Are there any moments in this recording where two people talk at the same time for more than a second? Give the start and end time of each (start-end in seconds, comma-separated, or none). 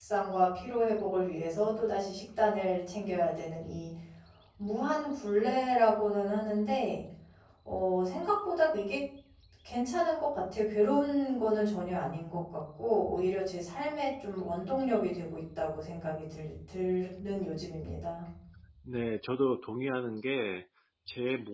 none